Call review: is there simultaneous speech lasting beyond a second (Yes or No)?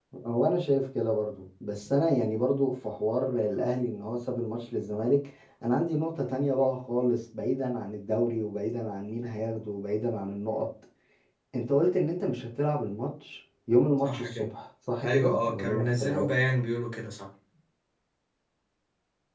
Yes